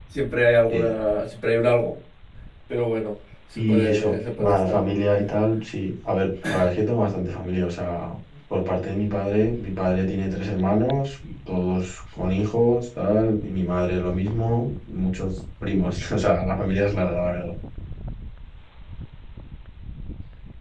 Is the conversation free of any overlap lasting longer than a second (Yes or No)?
No